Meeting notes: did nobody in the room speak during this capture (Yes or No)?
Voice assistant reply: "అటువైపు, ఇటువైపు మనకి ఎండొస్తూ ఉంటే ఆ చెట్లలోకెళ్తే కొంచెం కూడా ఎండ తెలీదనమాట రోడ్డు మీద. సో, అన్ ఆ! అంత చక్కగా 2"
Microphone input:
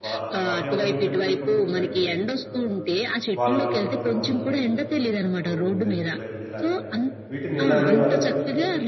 No